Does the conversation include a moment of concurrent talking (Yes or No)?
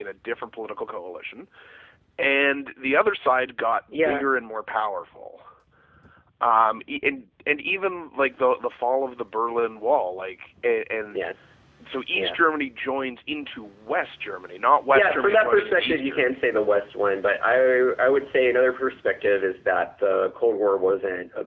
Yes